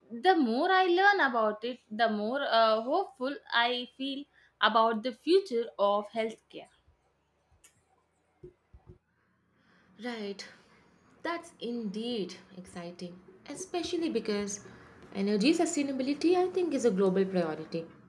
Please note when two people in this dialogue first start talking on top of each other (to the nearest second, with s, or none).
none